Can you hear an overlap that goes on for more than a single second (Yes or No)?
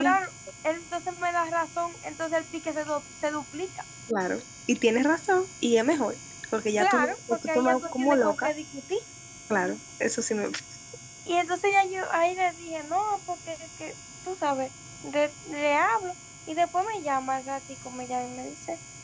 Yes